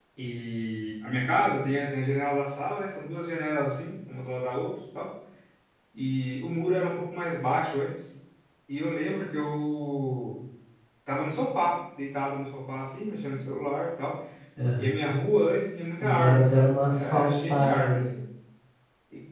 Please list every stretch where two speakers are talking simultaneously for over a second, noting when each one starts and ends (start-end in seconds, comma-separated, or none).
16.0-18.1